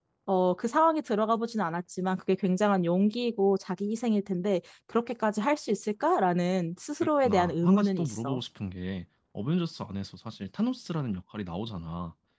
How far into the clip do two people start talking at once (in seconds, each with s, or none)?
7.0 s